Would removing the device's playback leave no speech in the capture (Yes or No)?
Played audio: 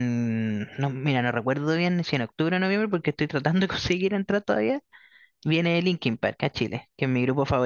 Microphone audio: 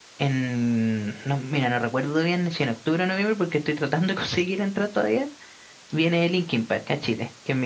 Yes